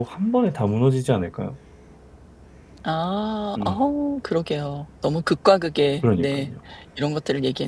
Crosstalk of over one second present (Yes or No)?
No